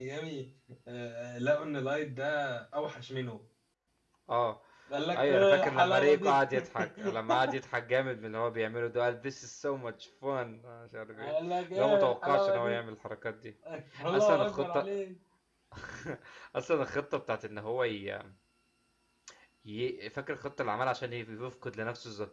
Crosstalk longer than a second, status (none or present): present